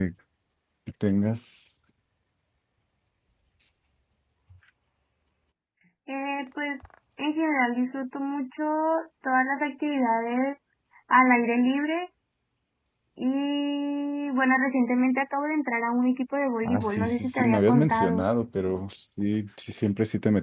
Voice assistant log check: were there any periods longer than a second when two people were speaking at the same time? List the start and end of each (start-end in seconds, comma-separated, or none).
16.6-18.2